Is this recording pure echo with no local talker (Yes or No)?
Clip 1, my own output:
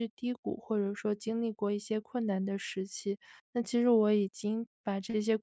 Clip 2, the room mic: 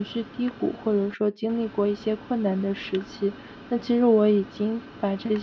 Yes